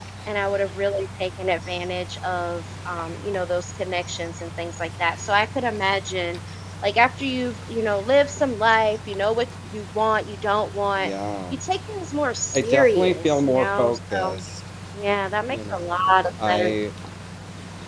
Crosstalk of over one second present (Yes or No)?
Yes